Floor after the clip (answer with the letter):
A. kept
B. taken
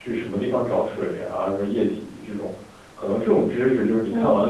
A